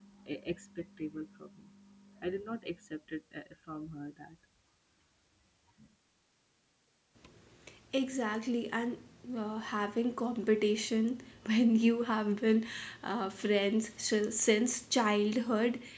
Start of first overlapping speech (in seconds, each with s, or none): none